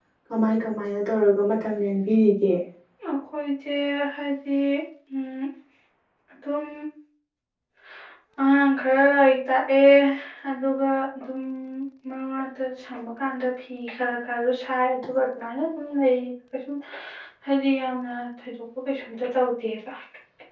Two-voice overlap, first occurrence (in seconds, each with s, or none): none